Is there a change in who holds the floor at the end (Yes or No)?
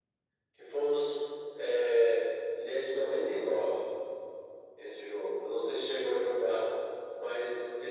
No